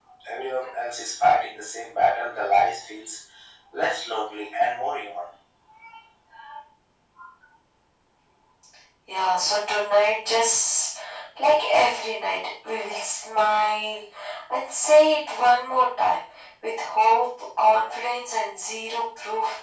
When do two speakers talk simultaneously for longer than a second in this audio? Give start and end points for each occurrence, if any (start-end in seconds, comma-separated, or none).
none